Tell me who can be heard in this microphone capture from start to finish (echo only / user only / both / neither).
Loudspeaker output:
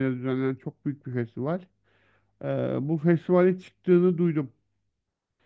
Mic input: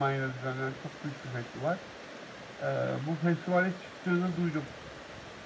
echo only